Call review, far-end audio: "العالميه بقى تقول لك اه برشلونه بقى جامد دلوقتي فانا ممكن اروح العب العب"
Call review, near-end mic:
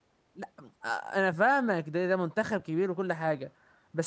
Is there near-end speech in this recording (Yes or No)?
Yes